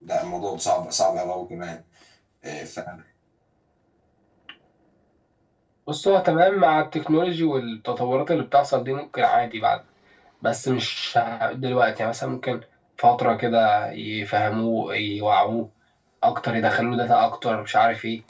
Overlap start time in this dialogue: none

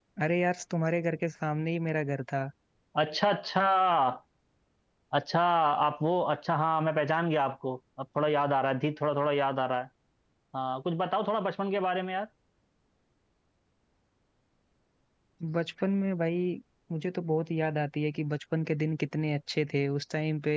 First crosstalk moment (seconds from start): none

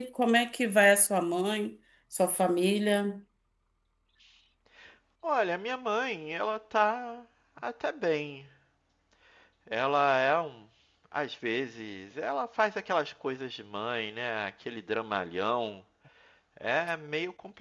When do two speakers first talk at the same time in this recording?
none

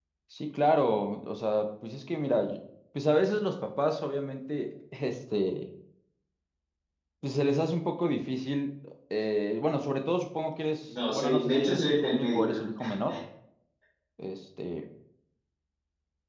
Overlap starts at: 10.9 s

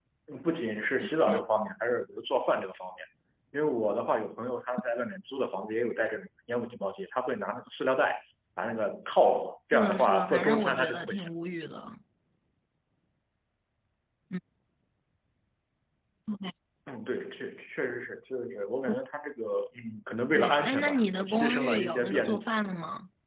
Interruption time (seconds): 9.7 s

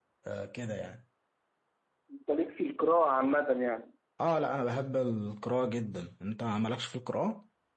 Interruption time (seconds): none

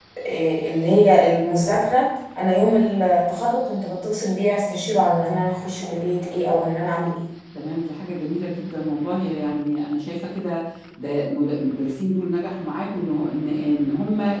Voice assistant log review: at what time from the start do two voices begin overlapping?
none

